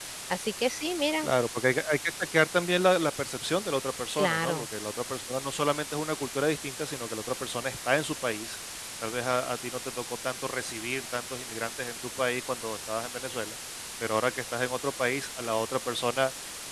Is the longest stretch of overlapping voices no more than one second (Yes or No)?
Yes